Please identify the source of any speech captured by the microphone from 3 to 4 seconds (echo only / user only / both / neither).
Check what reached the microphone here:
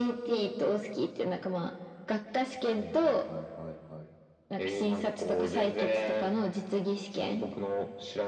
echo only